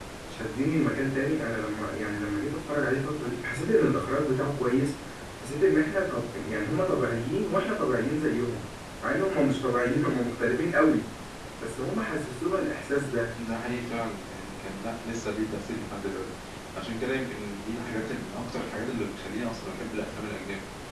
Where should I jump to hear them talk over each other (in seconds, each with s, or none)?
none